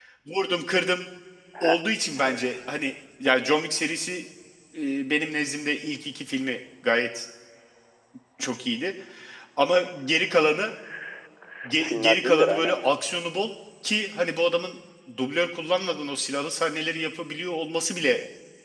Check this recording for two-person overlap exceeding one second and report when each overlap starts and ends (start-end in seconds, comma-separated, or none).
11.7-12.9